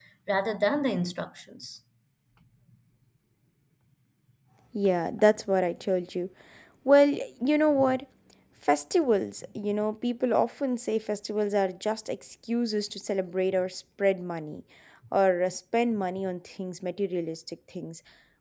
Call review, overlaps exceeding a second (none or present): none